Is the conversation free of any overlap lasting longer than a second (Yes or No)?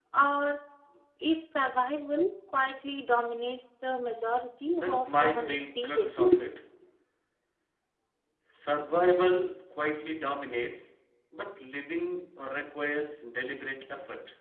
No